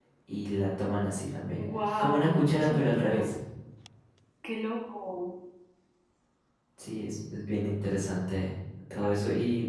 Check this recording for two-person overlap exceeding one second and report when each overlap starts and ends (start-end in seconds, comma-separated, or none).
2.0-3.3